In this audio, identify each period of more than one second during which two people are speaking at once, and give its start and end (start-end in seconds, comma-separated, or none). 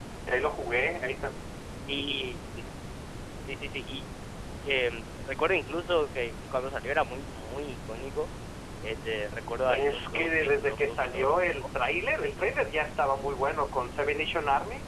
9.7-11.3